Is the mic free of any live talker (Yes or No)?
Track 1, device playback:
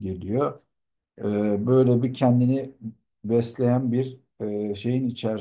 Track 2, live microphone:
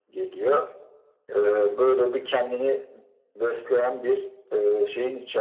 Yes